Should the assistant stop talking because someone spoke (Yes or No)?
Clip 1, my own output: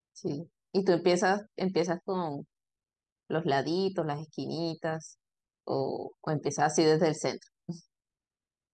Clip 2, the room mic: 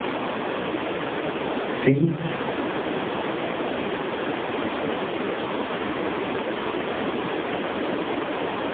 Yes